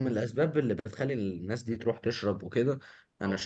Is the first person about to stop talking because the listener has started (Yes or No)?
No